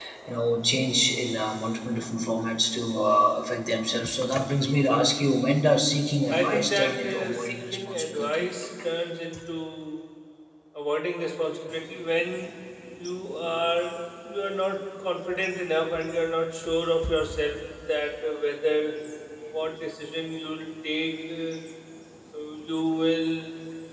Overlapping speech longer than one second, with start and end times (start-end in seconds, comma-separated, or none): 6.3-8.5